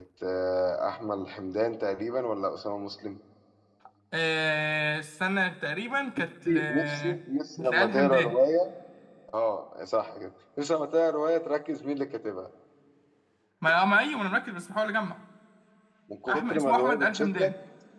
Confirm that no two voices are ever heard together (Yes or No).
No